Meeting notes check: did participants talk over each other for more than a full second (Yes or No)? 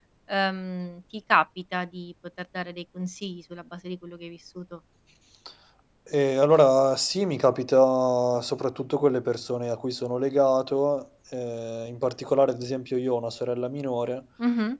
No